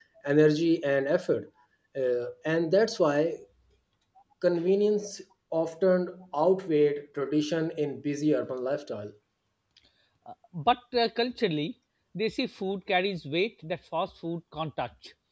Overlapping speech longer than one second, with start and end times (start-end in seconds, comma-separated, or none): none